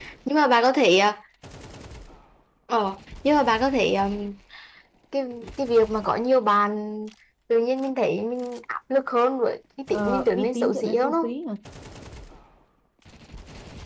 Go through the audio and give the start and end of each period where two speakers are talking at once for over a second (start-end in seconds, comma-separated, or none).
9.9-11.3